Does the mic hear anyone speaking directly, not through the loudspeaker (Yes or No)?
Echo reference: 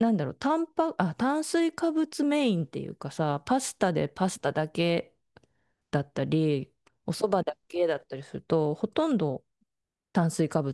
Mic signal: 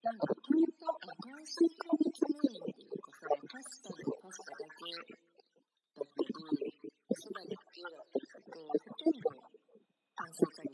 No